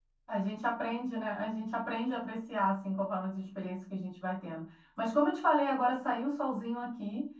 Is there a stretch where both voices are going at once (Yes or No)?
No